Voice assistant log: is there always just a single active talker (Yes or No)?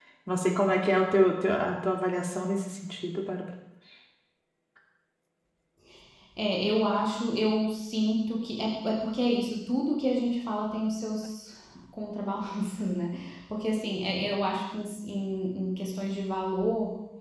Yes